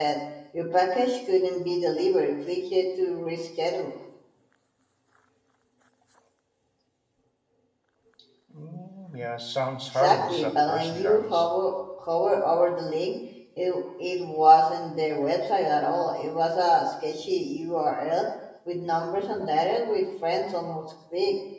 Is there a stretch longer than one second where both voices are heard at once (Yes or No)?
Yes